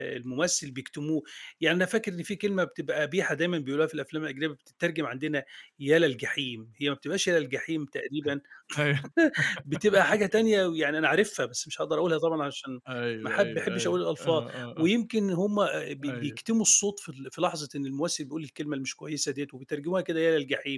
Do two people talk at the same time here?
Yes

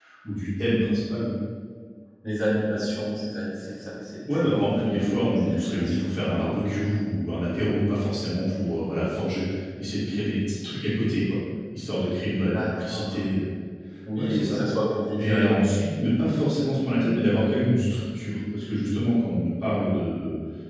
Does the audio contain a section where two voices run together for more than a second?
Yes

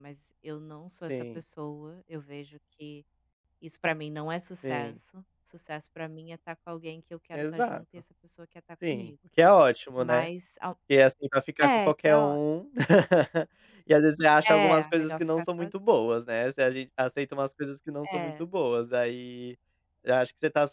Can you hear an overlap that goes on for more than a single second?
Yes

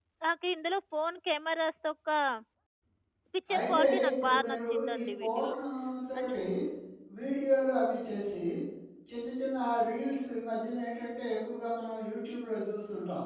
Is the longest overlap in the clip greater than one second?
Yes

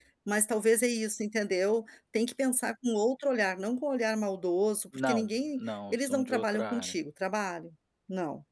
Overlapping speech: Yes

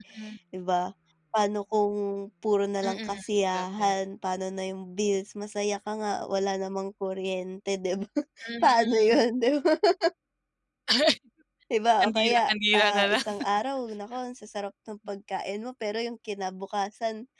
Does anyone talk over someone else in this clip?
Yes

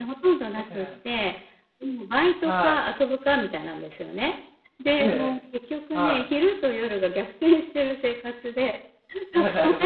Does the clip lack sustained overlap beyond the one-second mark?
Yes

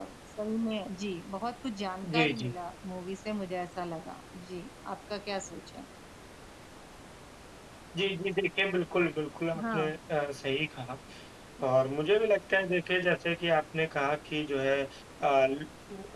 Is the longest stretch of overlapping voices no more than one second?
Yes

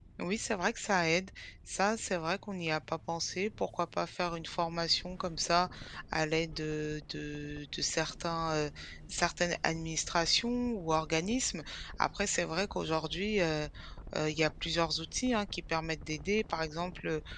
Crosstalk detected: No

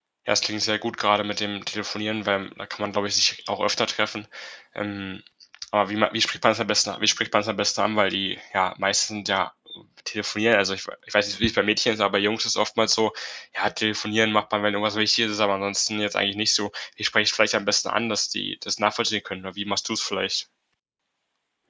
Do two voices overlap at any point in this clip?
No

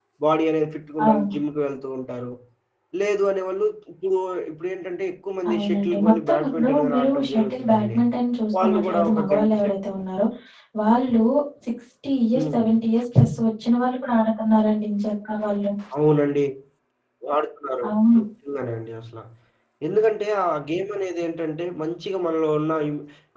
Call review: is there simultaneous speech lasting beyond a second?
Yes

